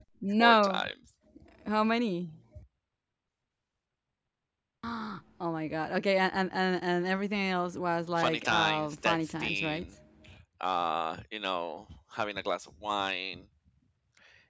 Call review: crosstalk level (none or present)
present